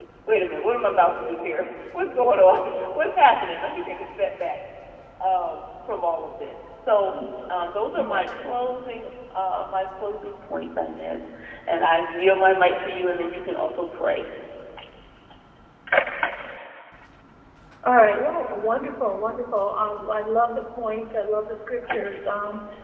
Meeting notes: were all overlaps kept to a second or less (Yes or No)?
Yes